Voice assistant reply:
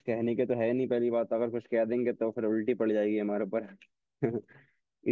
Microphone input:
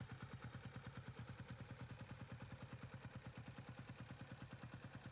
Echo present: No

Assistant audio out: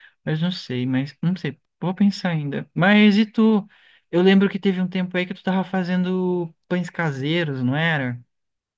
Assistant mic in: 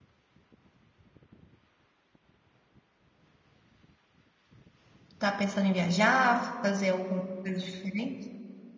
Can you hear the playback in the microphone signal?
No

